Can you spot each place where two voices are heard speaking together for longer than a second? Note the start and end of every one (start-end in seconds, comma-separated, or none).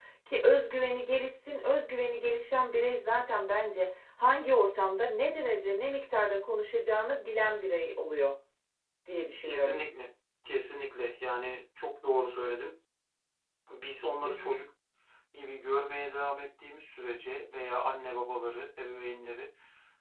none